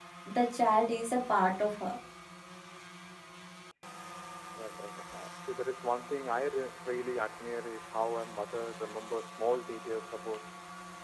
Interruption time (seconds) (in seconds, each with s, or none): none